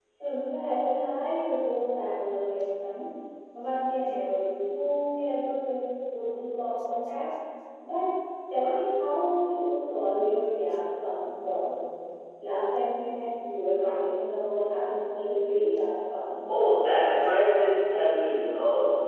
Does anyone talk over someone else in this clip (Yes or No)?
Yes